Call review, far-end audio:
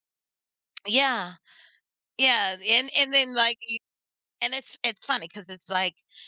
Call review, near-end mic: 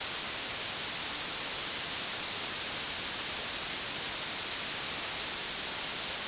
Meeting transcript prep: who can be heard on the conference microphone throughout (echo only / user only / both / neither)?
neither